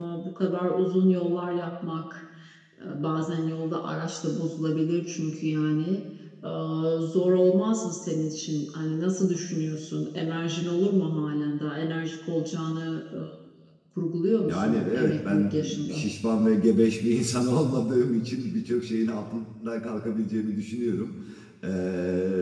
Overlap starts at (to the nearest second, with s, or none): 14 s